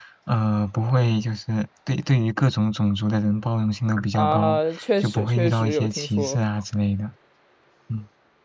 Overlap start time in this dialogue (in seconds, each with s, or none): 4.1 s